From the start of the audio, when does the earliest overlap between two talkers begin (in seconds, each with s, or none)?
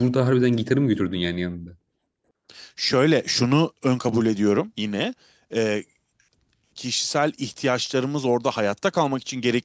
none